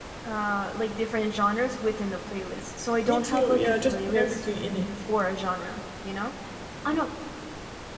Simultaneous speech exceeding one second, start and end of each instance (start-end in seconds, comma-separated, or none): 3.0-4.5